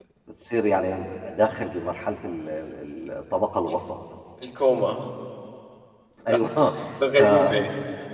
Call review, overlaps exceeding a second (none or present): none